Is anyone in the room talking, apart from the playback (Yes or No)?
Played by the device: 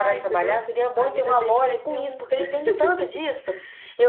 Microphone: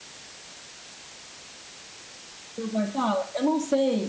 Yes